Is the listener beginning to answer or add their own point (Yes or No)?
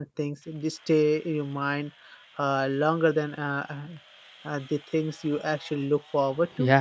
Yes